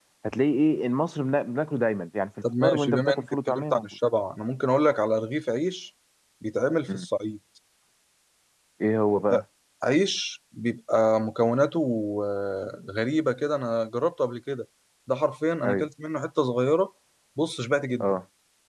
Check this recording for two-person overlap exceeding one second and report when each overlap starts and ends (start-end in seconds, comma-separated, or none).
2.6-3.9